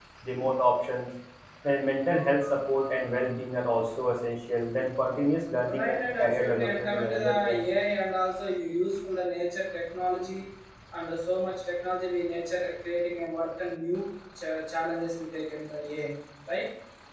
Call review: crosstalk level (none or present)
present